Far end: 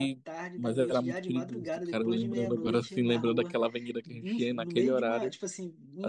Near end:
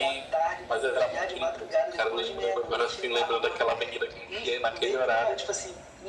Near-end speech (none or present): none